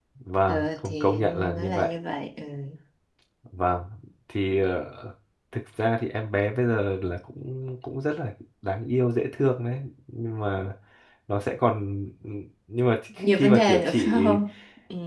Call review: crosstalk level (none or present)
present